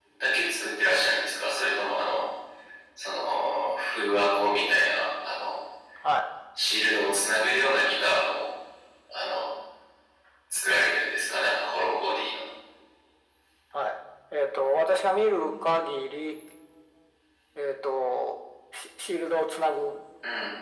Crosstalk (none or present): none